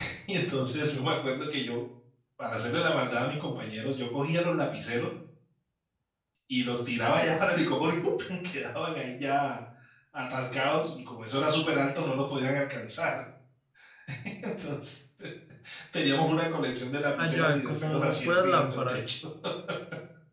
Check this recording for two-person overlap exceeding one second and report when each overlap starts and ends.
17.2-19.0

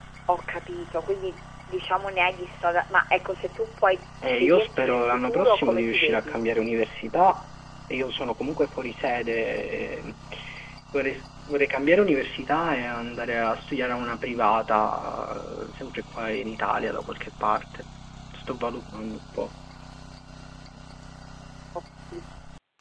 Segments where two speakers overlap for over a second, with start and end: 4.2-6.4

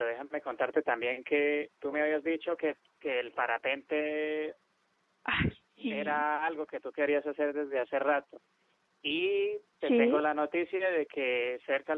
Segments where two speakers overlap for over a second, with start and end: none

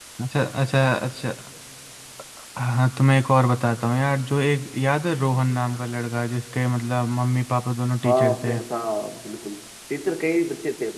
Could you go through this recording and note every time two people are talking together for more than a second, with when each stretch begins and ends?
none

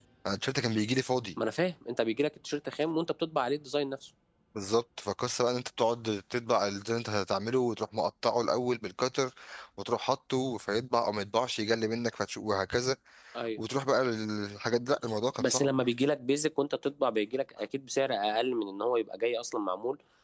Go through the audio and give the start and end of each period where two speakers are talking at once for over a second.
none

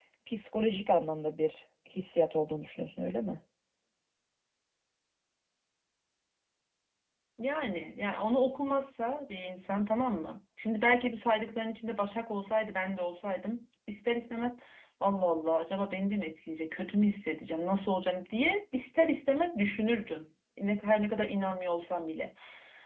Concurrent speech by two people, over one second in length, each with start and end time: none

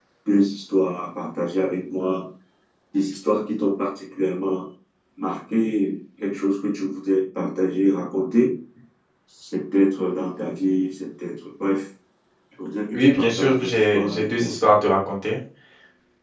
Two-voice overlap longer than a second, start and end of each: 12.9-14.5

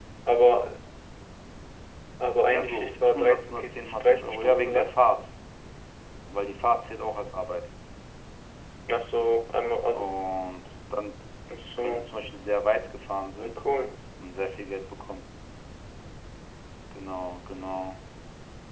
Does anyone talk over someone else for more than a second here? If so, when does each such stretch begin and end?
2.5-4.9

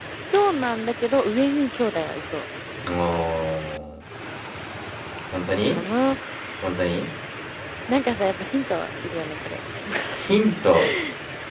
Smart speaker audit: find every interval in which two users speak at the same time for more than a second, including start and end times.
none

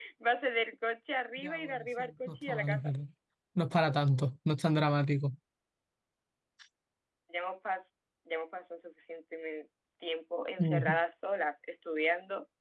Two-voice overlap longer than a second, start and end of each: 1.4-2.9

